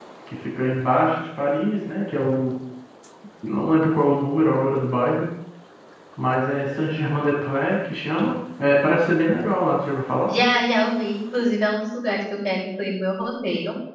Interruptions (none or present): none